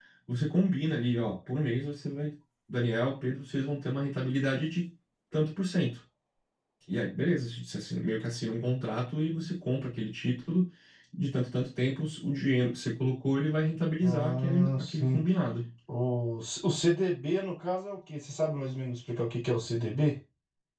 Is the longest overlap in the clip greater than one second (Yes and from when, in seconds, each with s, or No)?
Yes, from 14.0 s